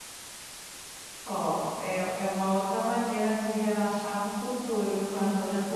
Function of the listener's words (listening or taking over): taking over